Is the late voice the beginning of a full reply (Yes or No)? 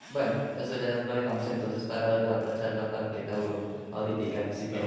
Yes